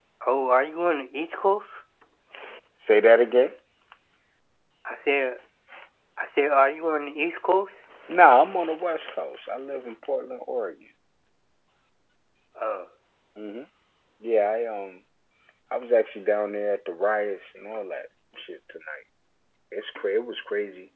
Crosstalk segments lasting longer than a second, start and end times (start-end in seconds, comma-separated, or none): none